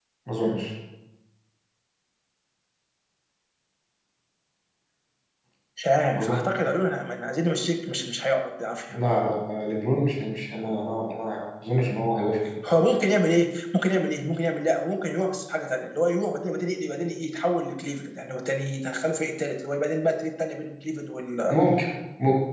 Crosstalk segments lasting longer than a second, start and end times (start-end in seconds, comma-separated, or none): none